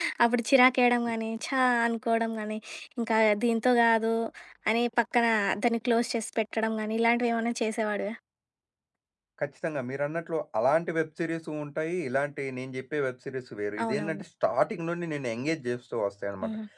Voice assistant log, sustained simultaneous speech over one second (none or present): none